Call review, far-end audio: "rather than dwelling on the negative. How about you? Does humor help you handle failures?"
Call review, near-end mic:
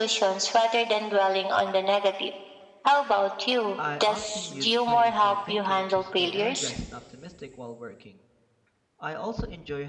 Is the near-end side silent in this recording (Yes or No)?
No